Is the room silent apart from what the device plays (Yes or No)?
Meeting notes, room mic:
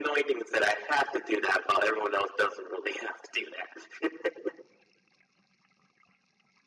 Yes